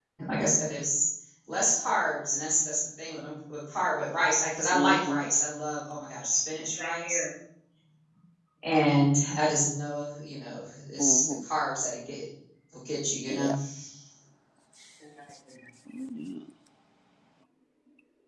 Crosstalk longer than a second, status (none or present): none